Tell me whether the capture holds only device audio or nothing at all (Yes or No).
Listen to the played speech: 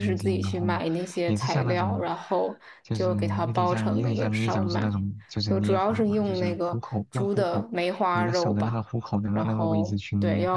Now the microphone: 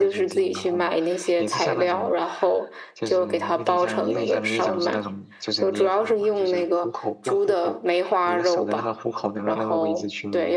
Yes